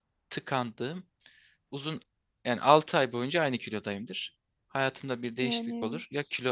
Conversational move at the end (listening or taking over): listening